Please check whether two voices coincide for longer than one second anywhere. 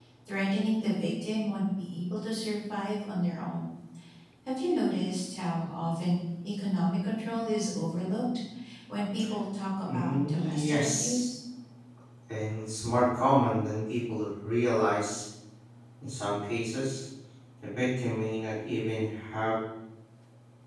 Yes, from 9.8 s

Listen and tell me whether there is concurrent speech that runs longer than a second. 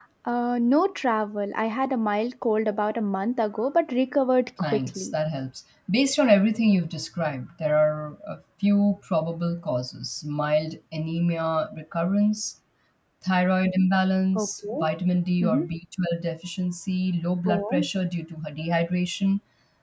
No

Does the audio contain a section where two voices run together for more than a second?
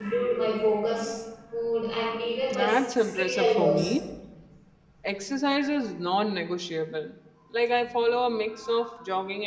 Yes, from 2.5 s

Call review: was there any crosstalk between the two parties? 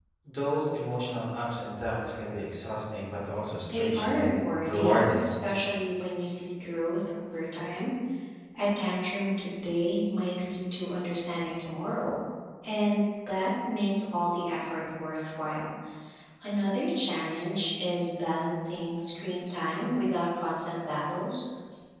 Yes, from 3.7 s

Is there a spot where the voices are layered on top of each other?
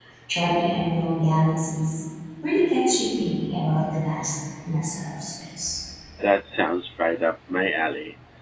No

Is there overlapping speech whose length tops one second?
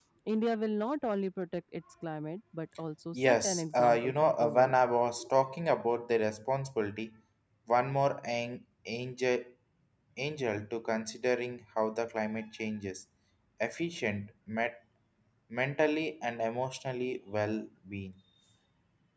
Yes, from 3.1 s

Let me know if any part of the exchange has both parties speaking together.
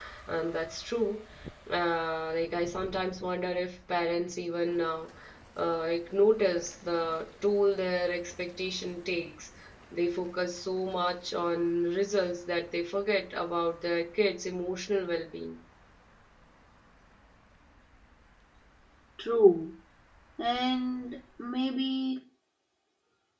No

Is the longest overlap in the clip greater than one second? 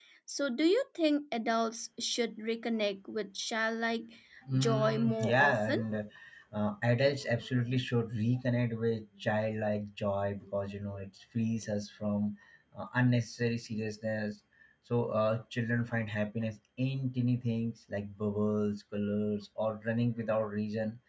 Yes, from 4.5 s

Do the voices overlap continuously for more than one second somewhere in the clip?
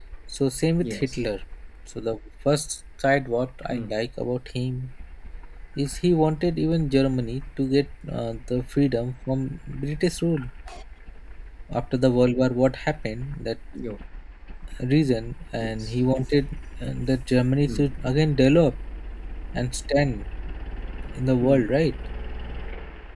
No

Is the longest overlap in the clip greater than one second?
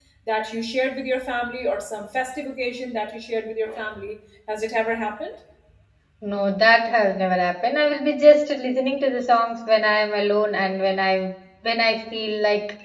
No

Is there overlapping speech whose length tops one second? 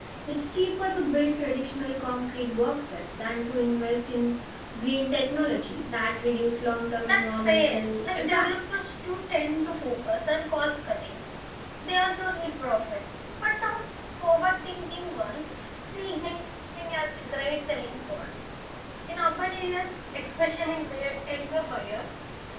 Yes, from 7.0 s

